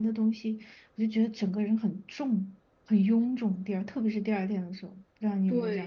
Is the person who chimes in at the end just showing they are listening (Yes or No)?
No